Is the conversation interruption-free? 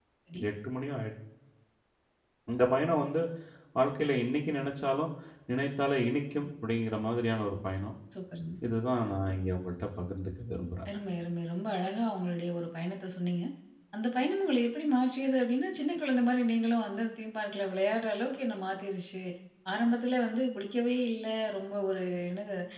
Yes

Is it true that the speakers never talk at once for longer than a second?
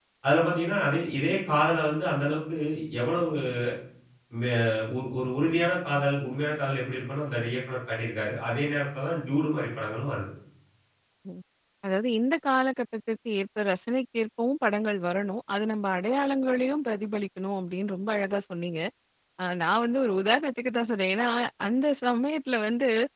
Yes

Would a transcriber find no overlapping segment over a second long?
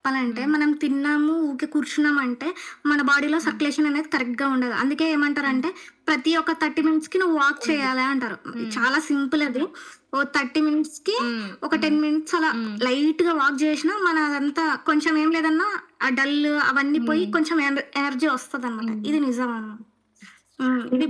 Yes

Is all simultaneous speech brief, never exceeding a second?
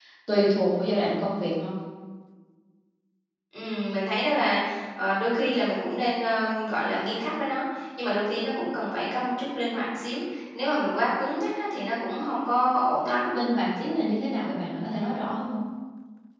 Yes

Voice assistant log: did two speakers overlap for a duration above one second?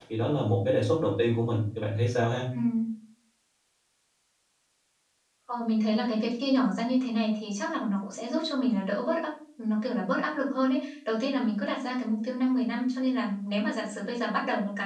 No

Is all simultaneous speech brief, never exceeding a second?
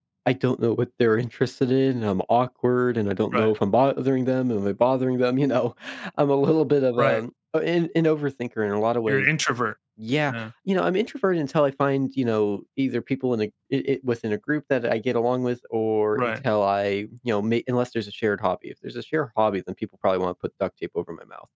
Yes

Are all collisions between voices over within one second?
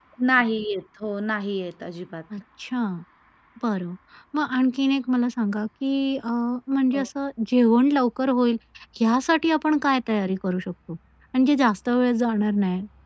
Yes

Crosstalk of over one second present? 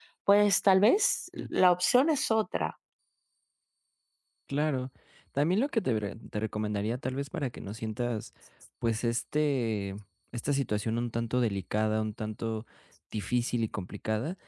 No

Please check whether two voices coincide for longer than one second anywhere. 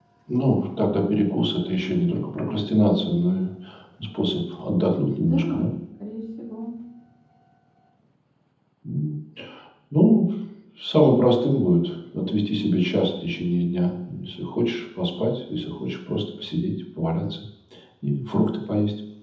No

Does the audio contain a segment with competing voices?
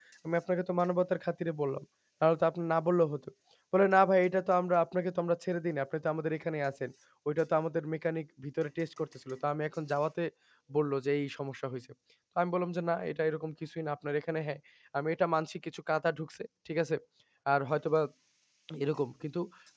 No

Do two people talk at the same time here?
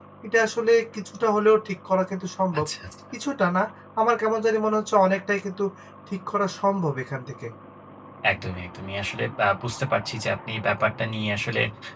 No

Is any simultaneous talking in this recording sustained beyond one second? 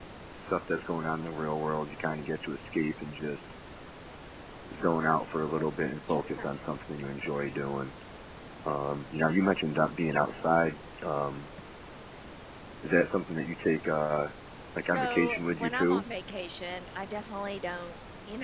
Yes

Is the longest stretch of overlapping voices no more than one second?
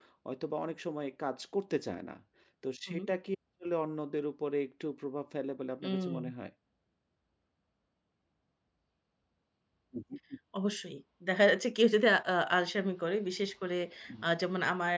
Yes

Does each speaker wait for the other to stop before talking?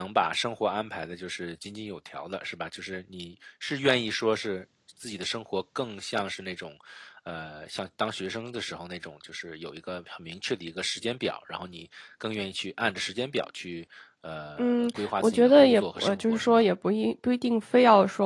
No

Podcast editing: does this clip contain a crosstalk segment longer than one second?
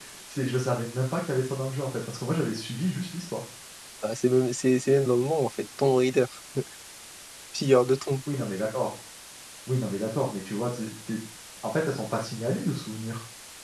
No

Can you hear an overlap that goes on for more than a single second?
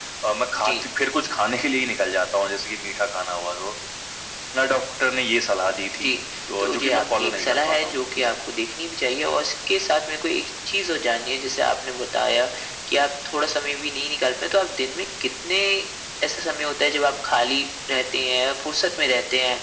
Yes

